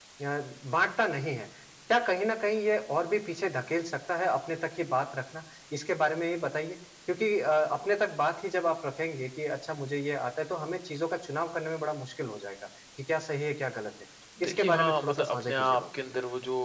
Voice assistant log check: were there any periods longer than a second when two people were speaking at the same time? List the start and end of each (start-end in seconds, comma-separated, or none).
14.4-15.8